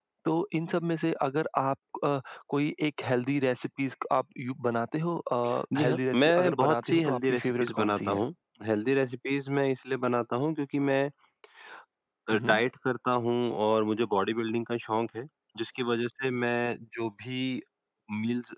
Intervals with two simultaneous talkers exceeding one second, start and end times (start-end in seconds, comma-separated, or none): 5.8-8.2